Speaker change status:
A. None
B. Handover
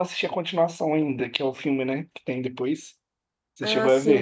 B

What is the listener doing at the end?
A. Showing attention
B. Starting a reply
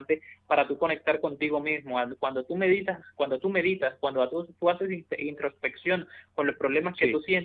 A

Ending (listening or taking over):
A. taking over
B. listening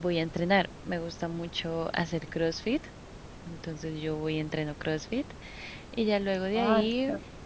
A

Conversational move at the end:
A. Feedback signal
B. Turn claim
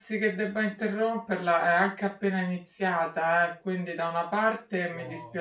A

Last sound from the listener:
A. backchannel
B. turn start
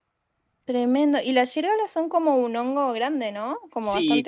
B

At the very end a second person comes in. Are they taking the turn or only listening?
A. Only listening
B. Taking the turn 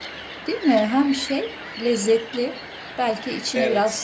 A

